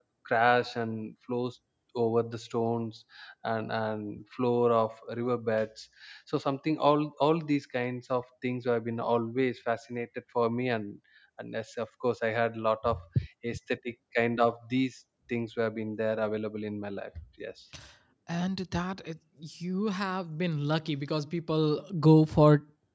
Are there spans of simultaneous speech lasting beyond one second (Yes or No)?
No